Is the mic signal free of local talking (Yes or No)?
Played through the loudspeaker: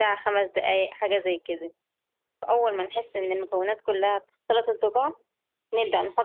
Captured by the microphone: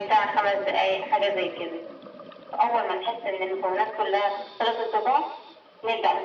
Yes